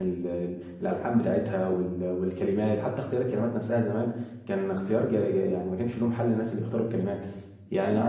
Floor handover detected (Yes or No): No